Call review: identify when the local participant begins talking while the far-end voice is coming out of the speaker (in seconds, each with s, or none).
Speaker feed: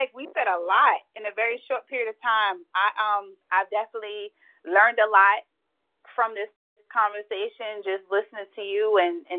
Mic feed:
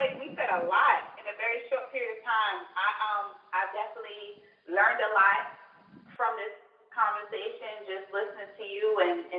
none